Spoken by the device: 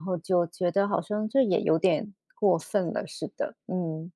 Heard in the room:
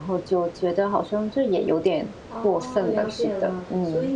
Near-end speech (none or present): present